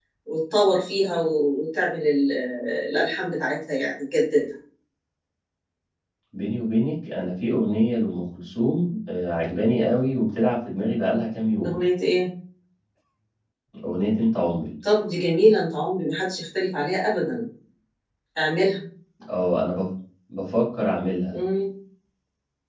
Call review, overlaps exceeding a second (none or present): none